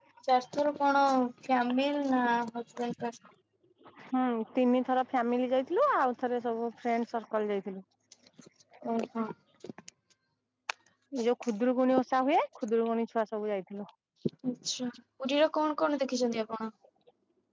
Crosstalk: none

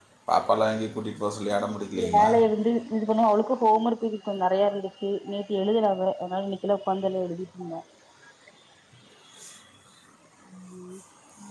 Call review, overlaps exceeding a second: none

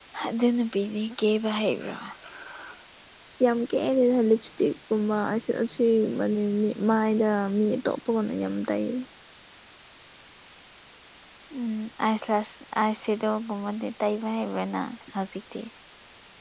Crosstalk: none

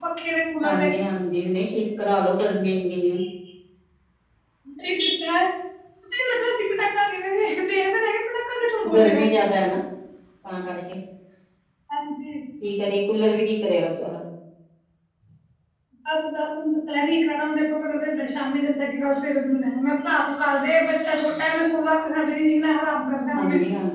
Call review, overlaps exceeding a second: none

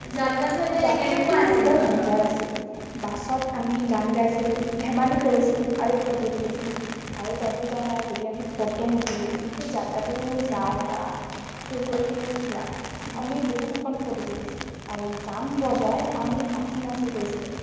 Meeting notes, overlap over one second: present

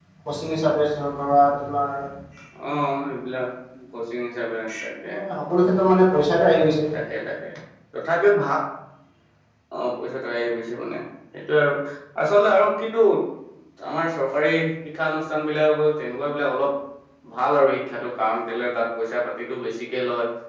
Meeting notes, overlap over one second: none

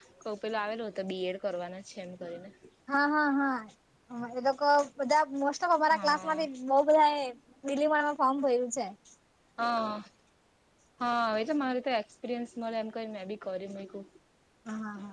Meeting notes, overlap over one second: none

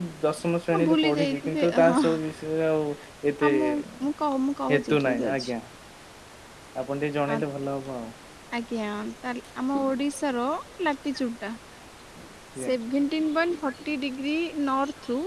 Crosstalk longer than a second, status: present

